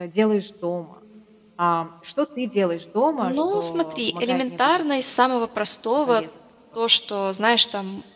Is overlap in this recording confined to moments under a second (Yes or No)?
No